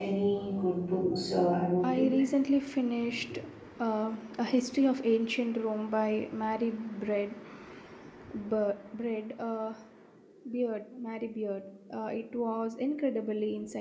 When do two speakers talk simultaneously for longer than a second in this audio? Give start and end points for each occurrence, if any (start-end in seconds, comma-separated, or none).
none